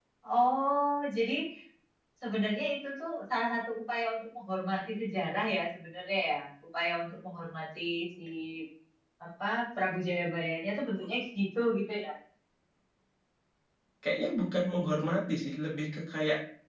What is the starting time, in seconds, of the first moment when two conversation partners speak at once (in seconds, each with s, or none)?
none